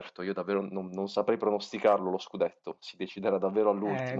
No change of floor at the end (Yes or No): No